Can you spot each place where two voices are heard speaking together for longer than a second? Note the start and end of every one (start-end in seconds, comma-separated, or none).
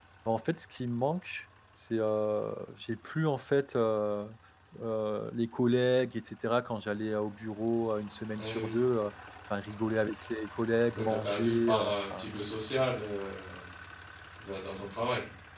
10.9-12.3